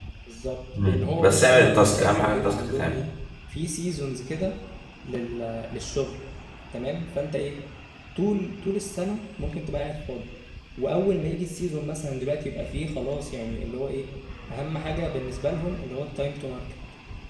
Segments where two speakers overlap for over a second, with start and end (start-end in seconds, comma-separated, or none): 0.8-3.0